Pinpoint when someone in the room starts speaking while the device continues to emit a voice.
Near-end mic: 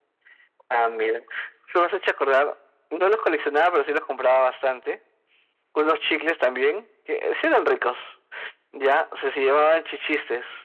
none

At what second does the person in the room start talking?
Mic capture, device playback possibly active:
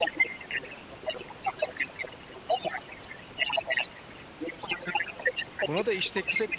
5.6 s

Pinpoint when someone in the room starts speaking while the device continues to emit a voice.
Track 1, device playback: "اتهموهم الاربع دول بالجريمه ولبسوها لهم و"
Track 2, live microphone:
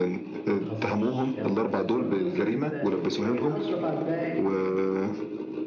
0.4 s

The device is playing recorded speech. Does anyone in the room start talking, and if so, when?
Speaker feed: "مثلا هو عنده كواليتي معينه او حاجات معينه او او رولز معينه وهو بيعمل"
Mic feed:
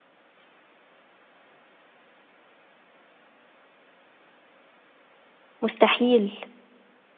5.6 s

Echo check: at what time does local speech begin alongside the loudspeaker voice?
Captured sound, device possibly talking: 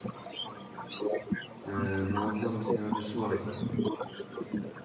1.6 s

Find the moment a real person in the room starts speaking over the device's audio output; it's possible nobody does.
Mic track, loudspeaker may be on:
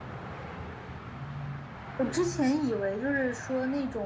none

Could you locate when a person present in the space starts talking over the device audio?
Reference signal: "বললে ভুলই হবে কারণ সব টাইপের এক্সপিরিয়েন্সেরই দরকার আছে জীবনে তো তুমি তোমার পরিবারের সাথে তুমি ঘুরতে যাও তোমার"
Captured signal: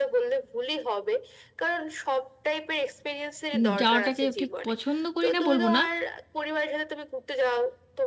3.5 s

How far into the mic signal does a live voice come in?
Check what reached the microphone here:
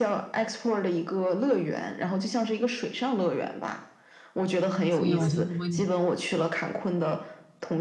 4.9 s

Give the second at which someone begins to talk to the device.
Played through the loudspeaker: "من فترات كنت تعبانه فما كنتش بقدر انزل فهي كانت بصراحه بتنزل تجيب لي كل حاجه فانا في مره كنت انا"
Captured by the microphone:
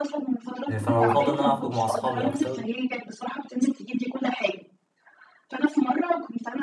0.7 s

